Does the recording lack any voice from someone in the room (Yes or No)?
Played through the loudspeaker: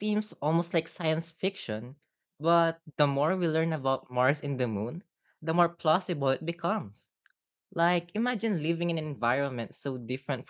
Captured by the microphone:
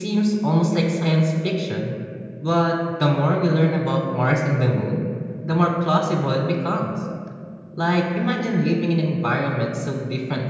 Yes